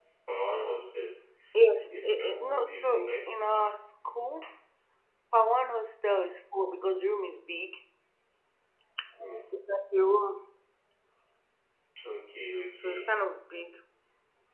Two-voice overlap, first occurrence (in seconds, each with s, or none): 2.0 s